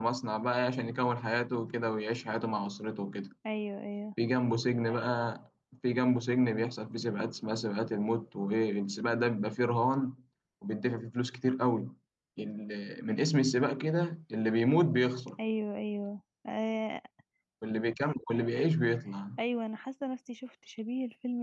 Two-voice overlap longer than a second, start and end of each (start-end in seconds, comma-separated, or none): none